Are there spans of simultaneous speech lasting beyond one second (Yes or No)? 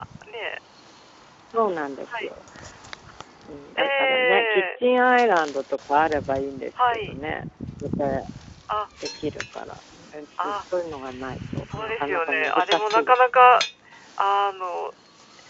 Yes